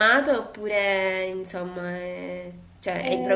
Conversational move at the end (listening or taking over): taking over